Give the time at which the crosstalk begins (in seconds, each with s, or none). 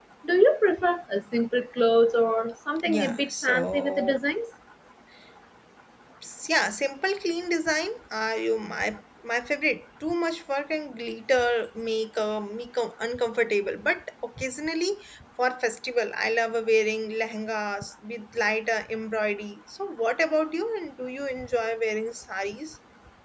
2.8 s